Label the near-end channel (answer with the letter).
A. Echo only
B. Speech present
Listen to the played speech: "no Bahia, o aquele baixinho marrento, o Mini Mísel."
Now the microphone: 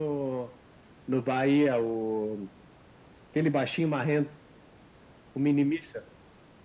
A